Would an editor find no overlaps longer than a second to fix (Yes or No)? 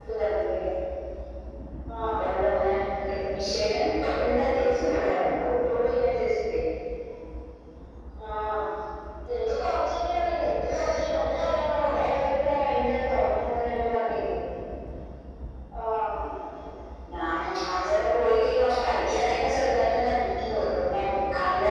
Yes